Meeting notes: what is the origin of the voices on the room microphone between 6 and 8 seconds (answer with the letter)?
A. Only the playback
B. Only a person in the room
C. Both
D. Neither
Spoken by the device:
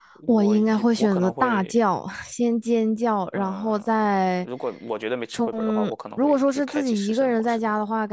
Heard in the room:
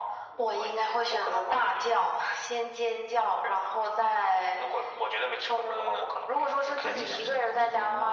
C